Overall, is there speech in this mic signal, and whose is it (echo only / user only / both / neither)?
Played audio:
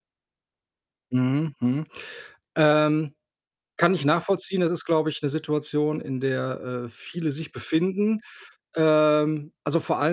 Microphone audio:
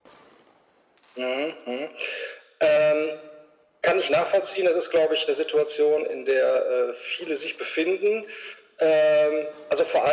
echo only